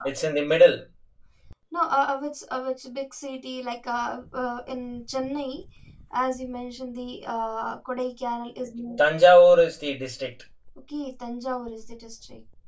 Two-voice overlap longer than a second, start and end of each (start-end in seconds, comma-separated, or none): none